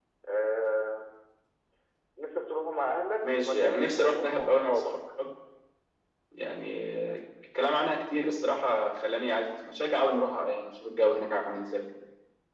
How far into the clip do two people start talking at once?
3.2 s

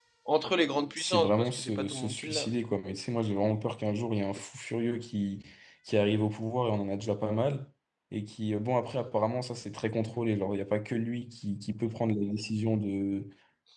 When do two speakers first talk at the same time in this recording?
1.0 s

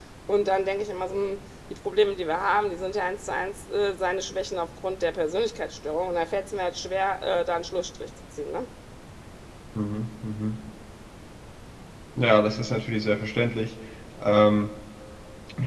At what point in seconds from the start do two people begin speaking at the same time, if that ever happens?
none

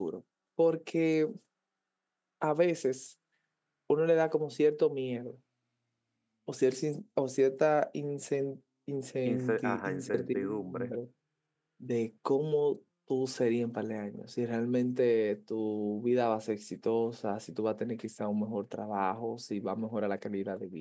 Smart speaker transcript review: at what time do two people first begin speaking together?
9.2 s

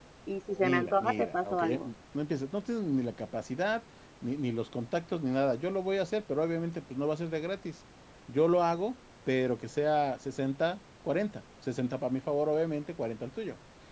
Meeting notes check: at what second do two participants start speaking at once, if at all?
0.6 s

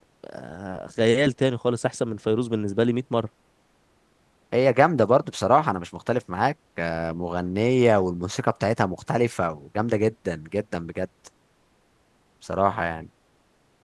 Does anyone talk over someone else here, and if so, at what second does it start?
none

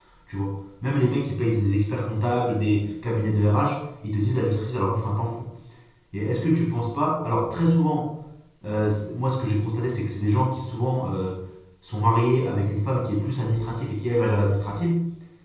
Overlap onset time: none

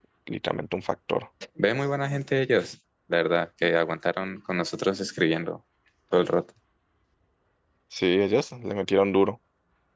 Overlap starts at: none

